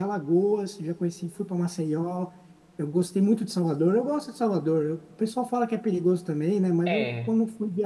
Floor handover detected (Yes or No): No